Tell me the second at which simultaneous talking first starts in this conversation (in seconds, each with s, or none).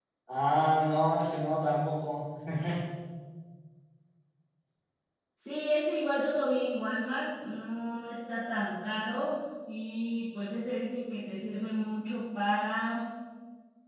none